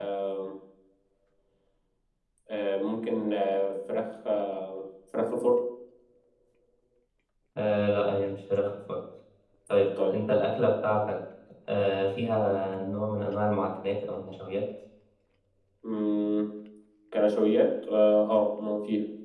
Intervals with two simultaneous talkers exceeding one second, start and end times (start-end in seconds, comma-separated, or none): none